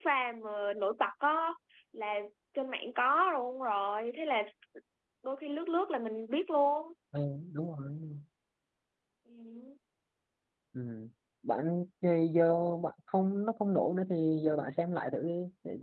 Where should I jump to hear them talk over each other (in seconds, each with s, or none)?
none